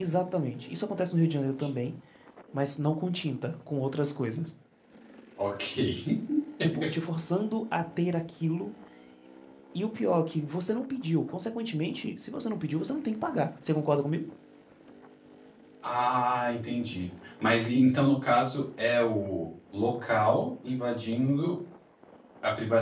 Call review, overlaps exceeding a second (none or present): none